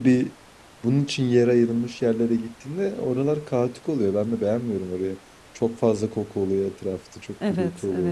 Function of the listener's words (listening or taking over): taking over